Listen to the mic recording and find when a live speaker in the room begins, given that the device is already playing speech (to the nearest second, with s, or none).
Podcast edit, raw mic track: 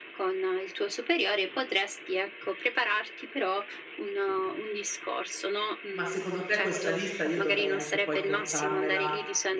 6 s